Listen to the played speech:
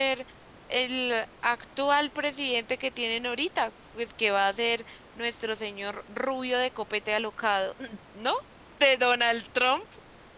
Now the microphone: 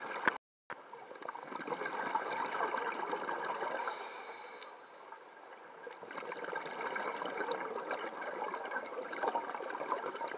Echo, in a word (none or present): none